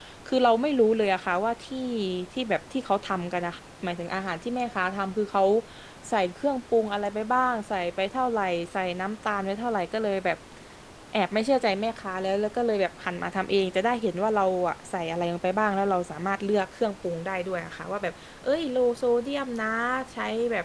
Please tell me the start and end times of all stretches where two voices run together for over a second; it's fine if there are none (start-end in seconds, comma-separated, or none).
none